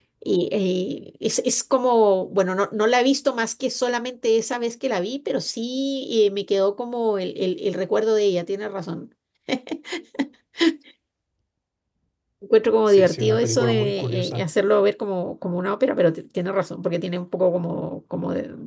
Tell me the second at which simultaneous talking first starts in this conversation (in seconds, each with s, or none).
12.9 s